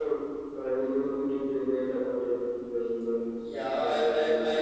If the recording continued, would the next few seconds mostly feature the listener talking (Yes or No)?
Yes